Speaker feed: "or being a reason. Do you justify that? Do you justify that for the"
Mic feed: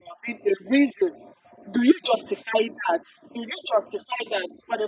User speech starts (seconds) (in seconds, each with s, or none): none